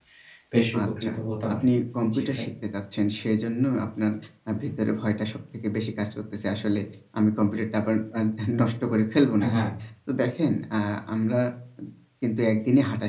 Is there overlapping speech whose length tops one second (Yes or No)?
No